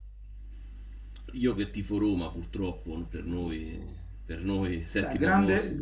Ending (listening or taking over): taking over